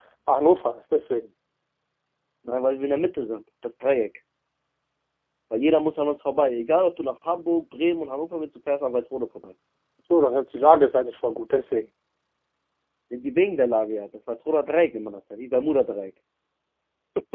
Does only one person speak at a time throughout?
Yes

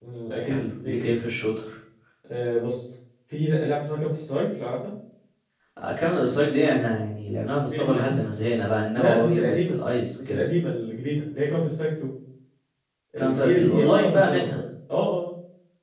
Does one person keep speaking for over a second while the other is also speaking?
Yes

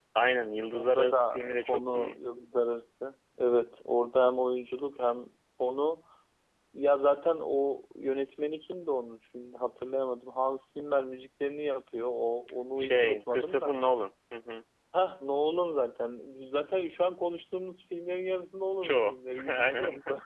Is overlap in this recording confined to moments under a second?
No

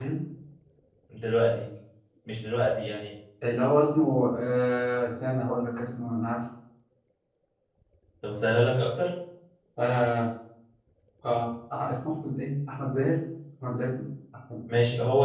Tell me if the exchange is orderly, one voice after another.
Yes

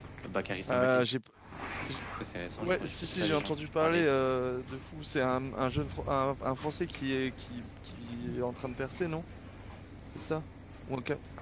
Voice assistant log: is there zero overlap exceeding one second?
No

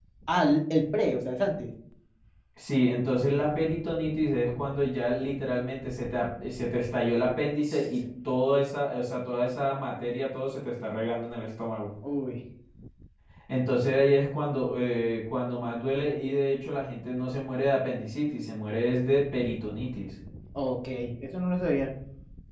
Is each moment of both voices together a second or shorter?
Yes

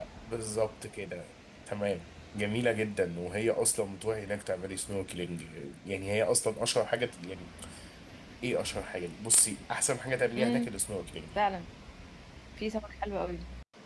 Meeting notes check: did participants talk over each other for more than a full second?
No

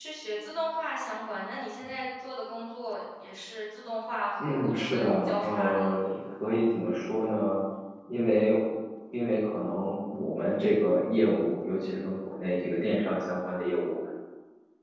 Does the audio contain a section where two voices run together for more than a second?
Yes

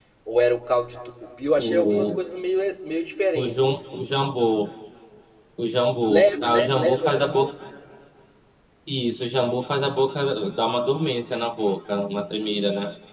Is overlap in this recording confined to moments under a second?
No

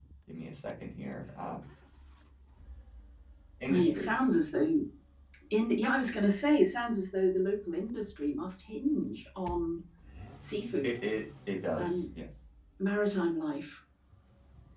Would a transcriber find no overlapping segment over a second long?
Yes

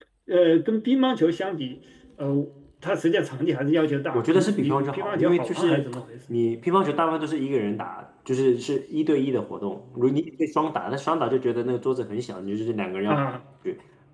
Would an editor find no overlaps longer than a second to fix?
No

